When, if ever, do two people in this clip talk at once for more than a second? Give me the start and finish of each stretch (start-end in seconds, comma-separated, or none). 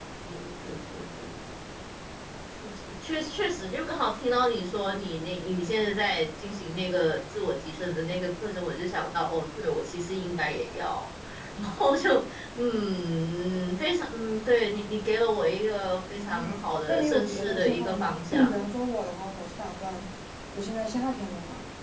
16.1-18.6